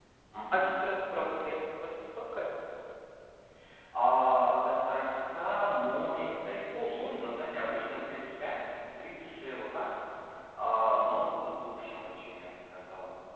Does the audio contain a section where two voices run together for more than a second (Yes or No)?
No